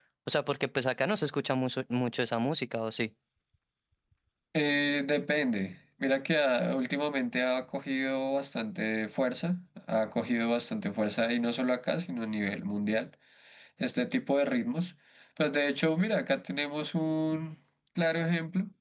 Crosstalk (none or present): none